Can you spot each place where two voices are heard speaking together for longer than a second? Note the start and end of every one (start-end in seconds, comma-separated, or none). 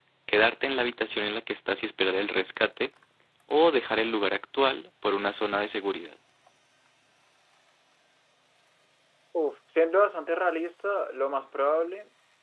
none